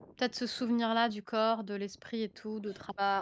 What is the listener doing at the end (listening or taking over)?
taking over